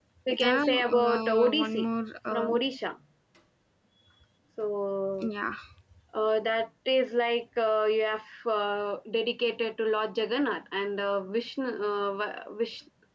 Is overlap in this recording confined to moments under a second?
No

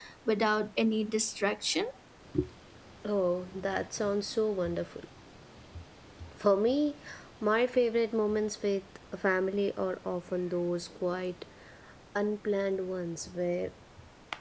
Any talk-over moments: No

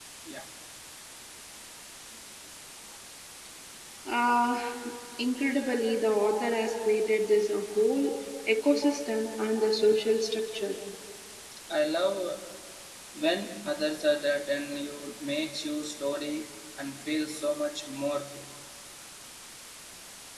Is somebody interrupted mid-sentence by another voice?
No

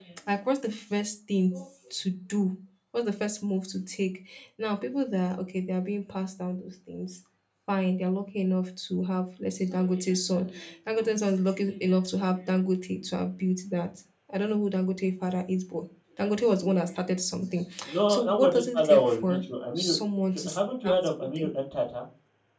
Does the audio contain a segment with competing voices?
Yes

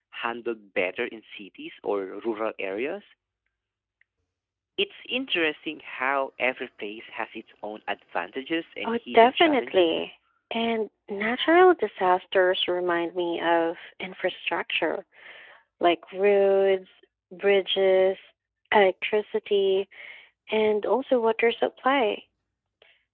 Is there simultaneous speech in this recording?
Yes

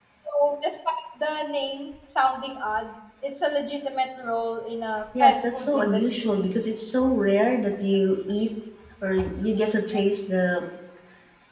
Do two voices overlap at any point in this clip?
Yes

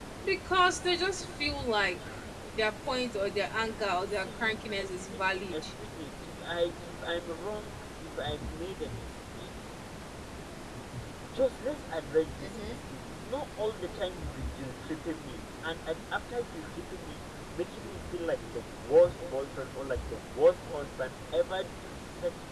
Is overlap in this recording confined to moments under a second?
No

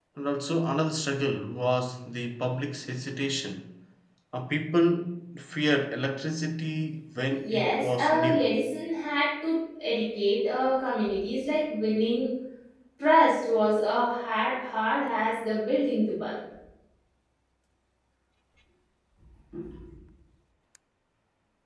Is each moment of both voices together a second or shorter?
No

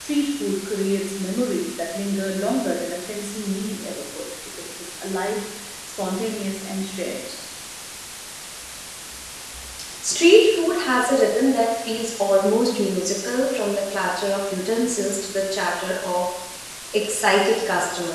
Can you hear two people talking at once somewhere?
No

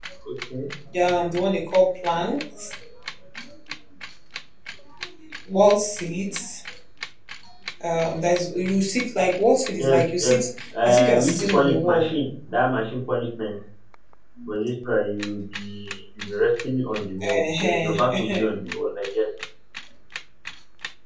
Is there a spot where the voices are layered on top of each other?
Yes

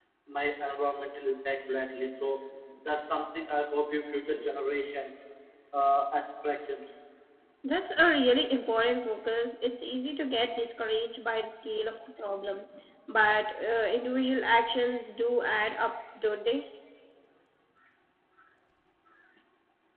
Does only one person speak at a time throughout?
Yes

